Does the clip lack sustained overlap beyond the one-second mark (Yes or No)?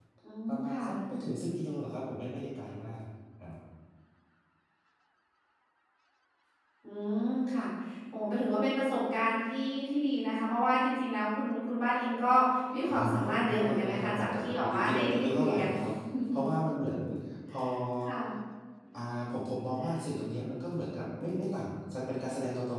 No